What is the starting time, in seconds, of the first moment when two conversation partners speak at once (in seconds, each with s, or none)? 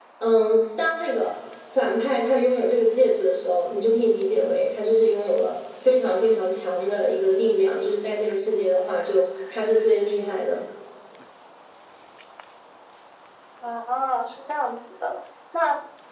none